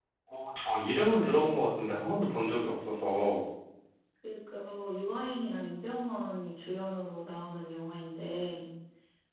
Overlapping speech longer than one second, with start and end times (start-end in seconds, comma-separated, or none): none